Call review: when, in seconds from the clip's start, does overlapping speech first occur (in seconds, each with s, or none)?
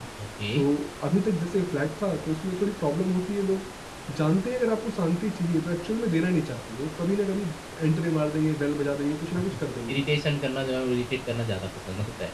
none